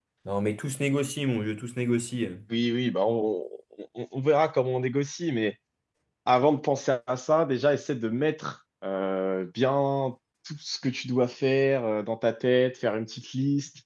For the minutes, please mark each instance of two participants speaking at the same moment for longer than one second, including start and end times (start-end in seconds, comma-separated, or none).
none